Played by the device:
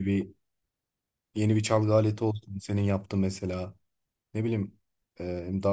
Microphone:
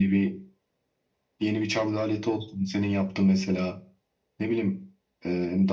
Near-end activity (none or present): none